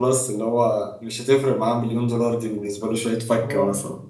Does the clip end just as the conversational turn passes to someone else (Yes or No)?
Yes